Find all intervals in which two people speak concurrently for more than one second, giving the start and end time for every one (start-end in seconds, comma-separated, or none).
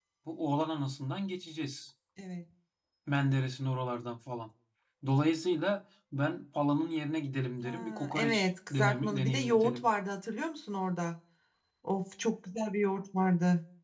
7.6-9.8